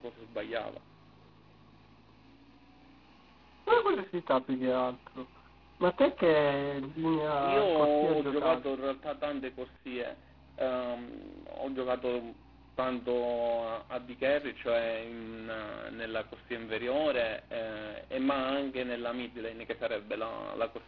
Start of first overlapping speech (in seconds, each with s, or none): 7.4 s